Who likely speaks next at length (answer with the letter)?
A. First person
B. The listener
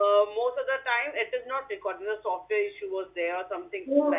B